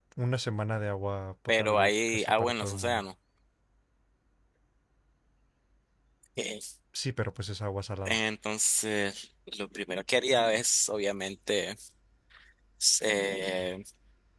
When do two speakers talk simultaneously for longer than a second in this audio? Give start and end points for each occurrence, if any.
1.6-3.0

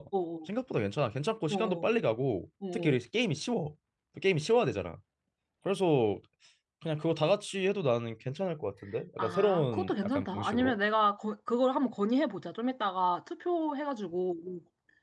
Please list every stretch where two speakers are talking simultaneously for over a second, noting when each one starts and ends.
9.2-10.7

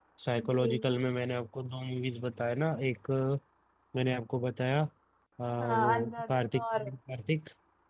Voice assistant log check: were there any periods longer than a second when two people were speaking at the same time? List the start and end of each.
5.6-6.9

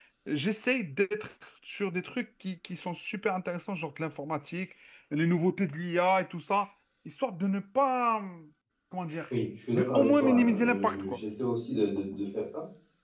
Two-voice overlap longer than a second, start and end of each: 9.7-11.2

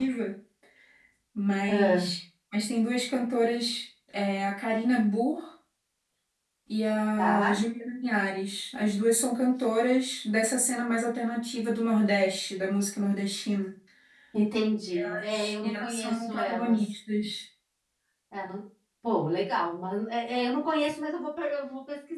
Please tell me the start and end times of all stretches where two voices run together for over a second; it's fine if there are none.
15.0-16.9

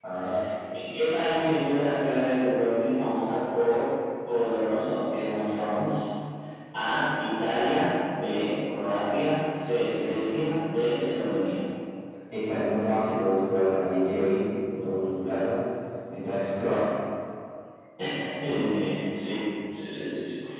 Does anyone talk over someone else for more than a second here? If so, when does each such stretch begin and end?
none

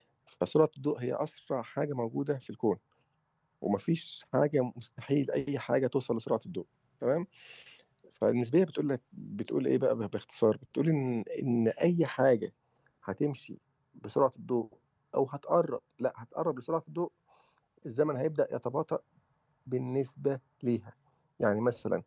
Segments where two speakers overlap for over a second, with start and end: none

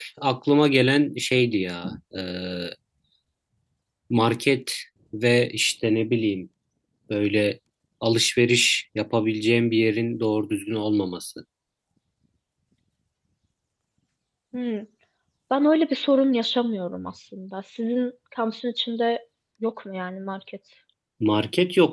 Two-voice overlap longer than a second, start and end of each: none

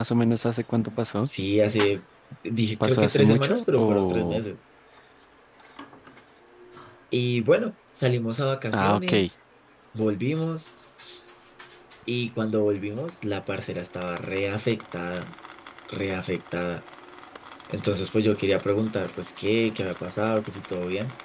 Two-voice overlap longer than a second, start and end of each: 2.8-4.4

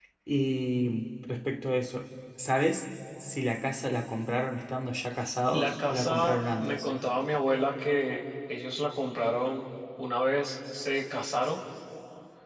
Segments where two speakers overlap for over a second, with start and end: 5.5-6.8

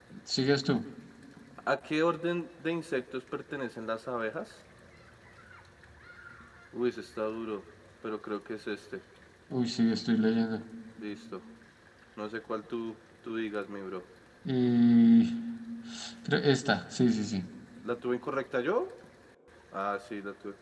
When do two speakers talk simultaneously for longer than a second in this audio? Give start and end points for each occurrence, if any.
none

